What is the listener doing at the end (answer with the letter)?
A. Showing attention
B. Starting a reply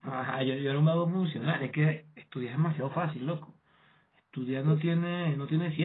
A